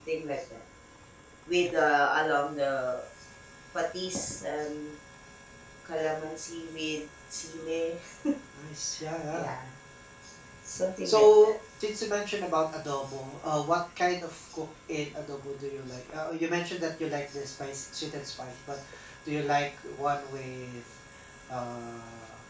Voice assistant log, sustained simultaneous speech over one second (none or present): none